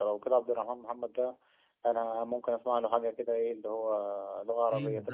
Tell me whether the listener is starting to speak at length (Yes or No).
Yes